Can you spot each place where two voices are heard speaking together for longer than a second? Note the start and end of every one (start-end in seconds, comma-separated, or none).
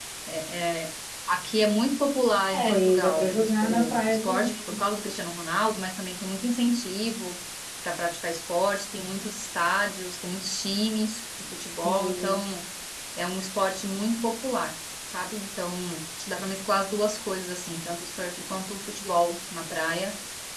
2.5-4.8